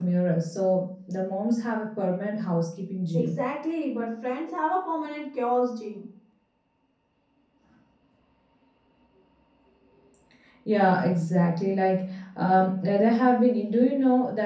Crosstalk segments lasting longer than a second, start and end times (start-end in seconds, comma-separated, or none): none